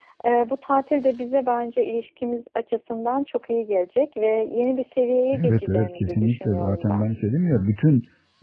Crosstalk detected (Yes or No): Yes